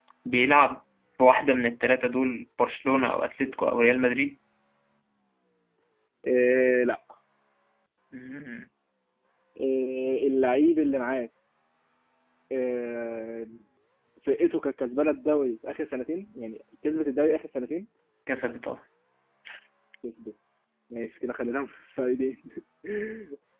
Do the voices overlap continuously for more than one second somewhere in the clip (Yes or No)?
No